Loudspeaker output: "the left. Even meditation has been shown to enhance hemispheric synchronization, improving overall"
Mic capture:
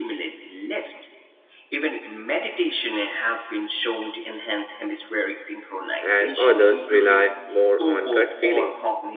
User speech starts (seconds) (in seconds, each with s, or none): 6.0 s